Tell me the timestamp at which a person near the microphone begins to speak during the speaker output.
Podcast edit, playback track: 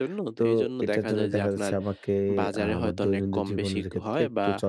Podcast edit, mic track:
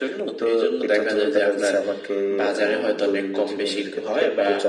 none

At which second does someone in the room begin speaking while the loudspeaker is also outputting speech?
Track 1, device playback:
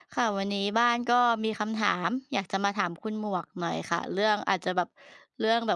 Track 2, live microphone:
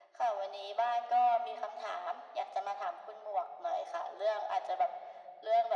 none

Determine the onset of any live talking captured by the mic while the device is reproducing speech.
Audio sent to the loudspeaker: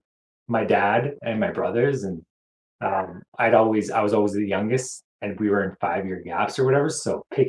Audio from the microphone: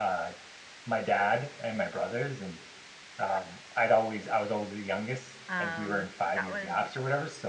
5.5 s

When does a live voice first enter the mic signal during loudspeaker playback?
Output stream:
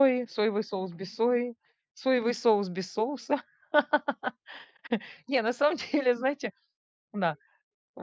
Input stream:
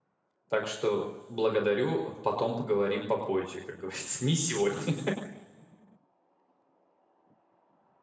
0.5 s

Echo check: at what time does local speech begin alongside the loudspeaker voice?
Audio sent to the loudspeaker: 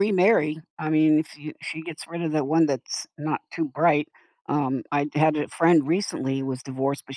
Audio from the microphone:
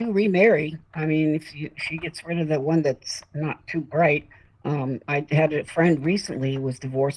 none

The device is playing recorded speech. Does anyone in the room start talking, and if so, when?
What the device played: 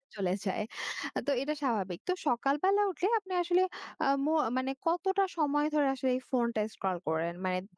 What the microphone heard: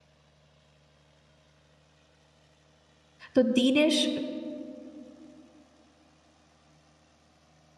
3.3 s

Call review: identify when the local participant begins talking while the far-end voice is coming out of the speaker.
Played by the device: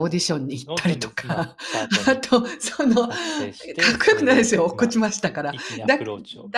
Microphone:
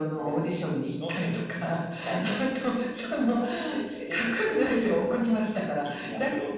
2.1 s

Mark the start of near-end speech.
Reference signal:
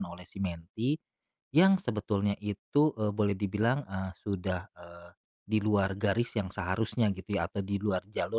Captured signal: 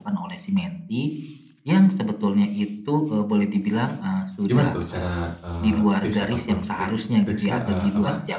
4.5 s

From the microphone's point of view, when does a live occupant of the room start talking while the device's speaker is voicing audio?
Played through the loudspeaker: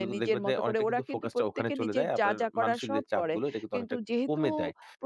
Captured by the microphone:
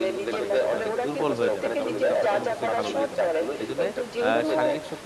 0.3 s

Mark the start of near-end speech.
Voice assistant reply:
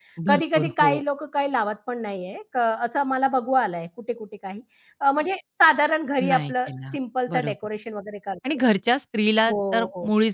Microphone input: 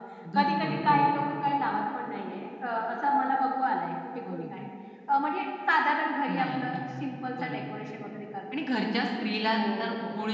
4.2 s

